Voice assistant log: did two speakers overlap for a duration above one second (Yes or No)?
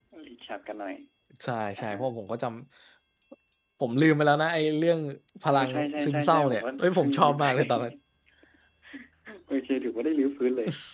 Yes